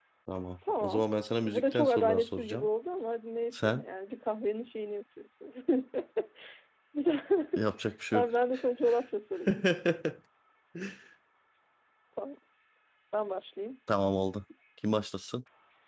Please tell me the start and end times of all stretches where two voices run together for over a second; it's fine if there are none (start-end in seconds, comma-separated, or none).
1.4-2.7